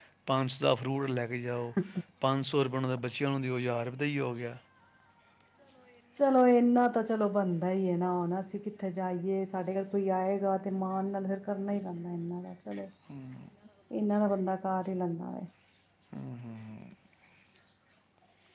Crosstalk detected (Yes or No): No